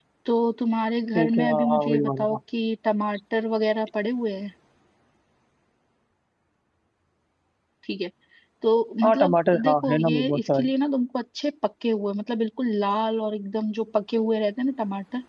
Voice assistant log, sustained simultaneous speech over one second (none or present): present